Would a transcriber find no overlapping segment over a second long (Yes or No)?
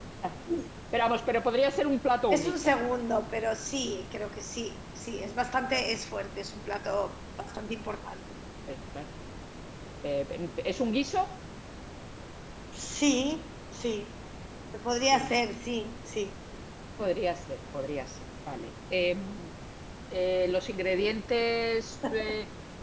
Yes